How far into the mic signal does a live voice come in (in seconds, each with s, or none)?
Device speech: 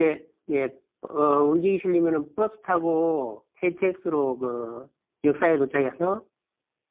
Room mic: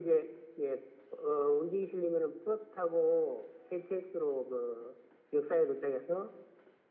none